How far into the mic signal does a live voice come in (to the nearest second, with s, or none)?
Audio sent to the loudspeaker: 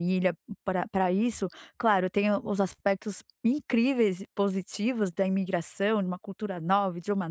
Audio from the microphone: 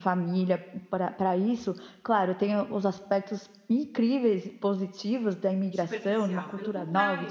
6 s